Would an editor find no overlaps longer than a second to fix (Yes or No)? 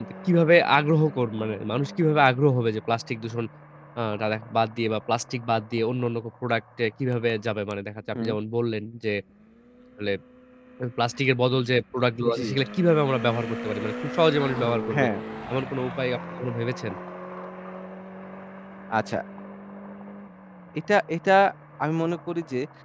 Yes